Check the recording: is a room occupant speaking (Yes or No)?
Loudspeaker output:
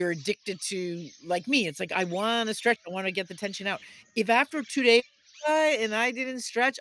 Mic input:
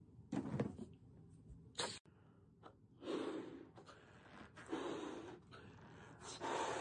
No